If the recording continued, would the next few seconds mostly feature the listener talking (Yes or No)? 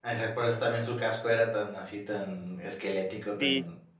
Yes